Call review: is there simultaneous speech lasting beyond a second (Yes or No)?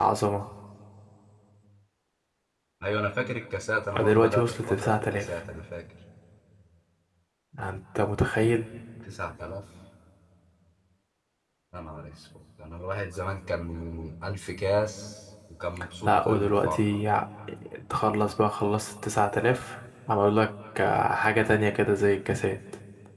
Yes